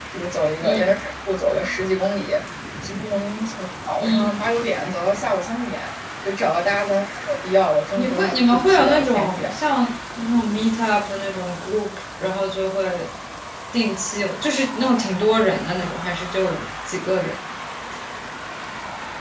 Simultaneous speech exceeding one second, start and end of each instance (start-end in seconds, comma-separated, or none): 8.0-9.5